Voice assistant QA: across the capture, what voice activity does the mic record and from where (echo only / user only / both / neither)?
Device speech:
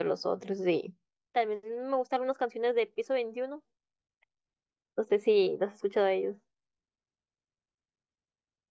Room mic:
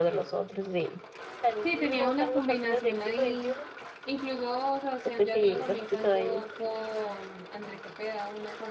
both